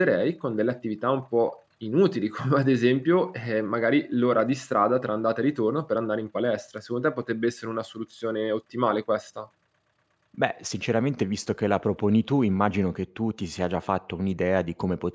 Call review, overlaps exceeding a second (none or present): none